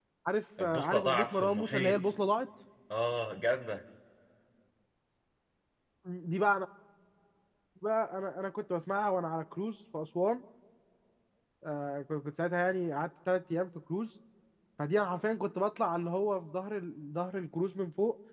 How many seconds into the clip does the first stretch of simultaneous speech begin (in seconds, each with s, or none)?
0.6 s